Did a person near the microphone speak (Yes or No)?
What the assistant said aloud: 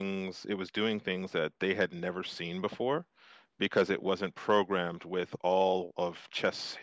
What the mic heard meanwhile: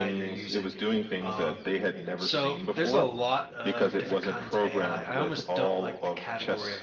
Yes